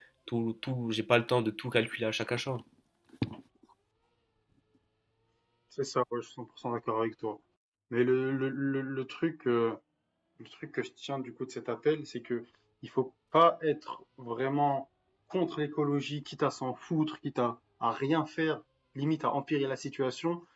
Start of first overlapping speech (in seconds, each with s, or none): none